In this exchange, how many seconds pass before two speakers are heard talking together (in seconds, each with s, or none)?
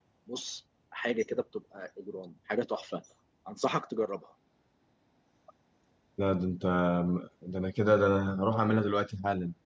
none